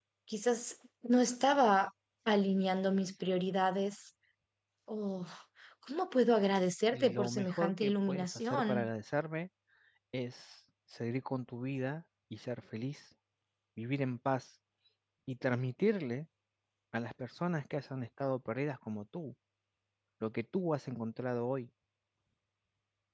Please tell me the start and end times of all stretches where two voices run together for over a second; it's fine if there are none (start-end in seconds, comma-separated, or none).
6.9-8.9